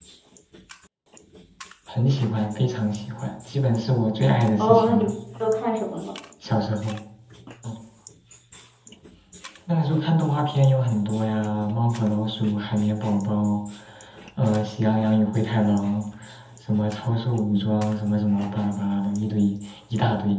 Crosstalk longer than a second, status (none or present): none